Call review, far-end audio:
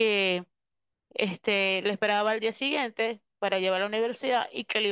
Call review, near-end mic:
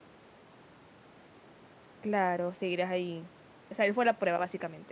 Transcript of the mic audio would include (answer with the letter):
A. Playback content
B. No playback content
B